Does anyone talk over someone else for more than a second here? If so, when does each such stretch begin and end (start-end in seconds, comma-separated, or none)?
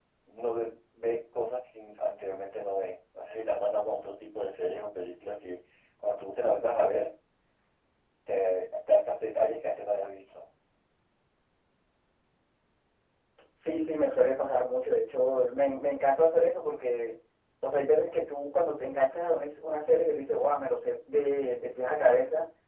none